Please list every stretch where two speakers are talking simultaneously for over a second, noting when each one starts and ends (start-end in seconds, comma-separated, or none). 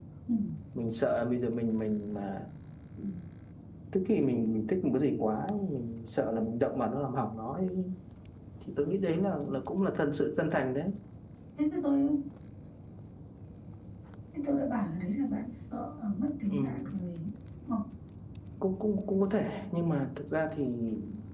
none